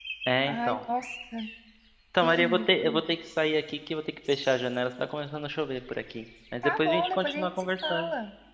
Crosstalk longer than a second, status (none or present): present